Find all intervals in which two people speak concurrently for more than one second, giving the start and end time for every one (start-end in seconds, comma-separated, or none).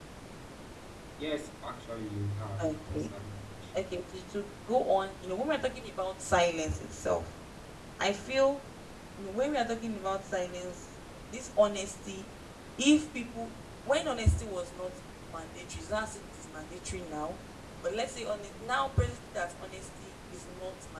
none